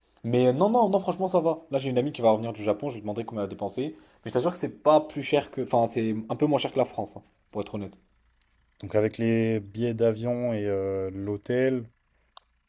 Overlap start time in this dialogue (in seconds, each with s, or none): none